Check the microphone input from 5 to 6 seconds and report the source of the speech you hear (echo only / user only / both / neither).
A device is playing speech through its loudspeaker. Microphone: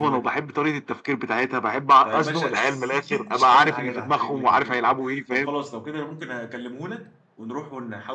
both